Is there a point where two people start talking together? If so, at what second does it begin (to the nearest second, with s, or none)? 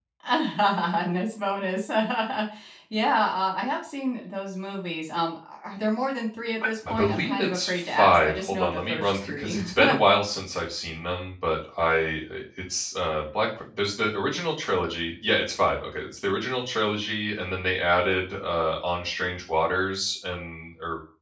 7 s